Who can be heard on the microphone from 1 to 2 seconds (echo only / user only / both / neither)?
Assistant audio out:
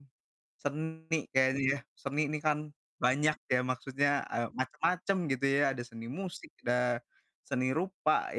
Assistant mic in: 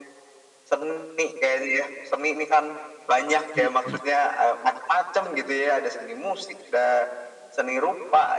echo only